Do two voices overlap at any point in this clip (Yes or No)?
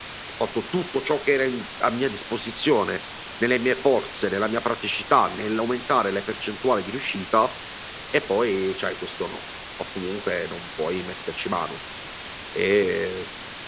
No